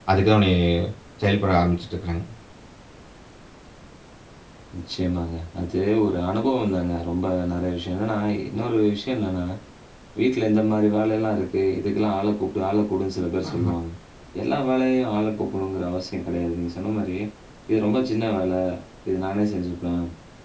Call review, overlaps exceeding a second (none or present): none